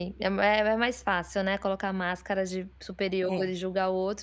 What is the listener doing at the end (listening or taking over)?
listening